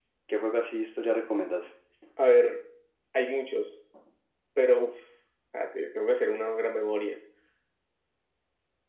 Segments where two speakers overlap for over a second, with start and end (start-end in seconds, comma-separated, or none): none